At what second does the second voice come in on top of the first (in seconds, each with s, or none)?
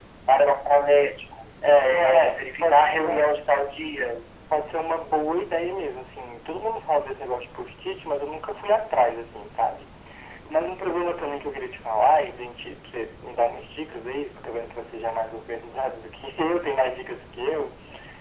1.6 s